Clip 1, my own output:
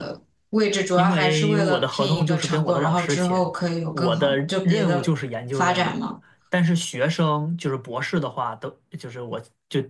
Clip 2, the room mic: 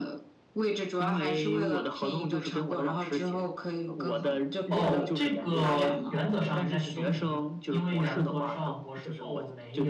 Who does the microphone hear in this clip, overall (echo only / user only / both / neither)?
both